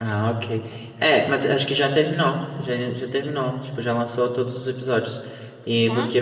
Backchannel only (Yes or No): Yes